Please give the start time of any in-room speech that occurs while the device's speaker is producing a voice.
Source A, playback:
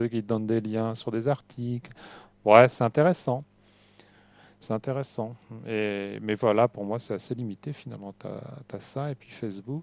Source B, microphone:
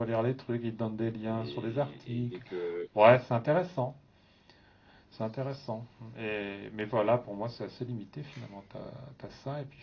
1.3 s

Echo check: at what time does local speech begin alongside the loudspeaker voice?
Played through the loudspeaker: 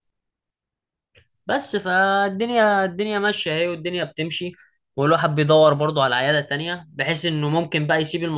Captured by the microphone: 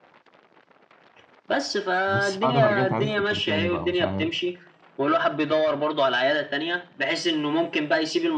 2.1 s

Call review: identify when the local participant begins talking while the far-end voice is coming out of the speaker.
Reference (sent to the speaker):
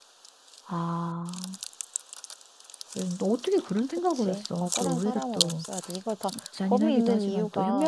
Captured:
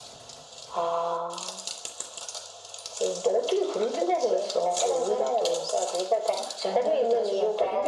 none

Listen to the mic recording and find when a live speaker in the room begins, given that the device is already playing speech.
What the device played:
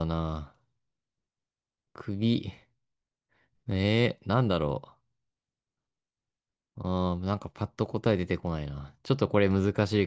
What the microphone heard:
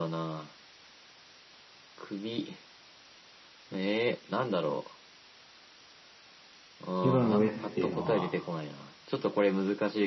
7.0 s

